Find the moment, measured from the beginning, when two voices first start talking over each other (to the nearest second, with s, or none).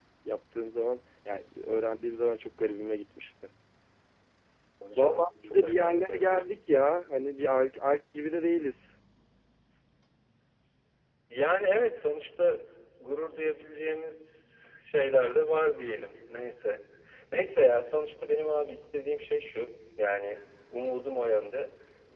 5 s